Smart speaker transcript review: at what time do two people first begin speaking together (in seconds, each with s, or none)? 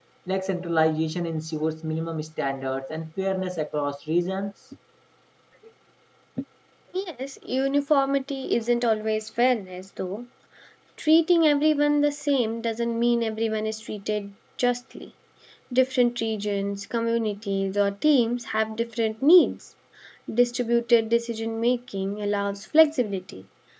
none